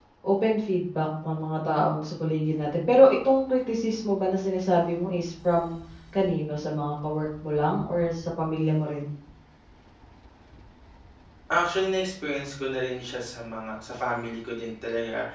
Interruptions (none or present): none